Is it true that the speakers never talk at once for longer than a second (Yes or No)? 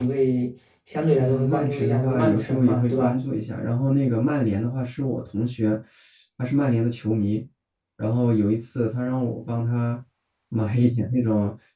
No